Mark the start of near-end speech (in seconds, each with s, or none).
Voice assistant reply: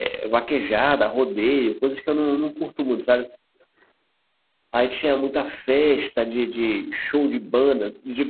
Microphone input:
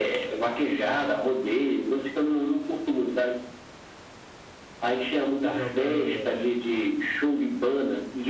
5.5 s